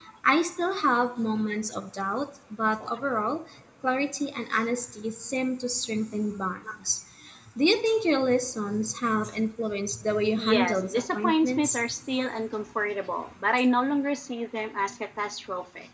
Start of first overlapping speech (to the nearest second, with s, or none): 10 s